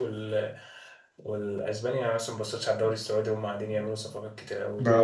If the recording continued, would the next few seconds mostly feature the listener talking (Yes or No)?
No